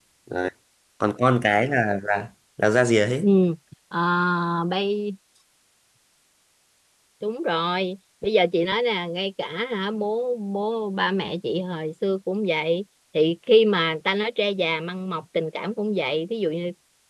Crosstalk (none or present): none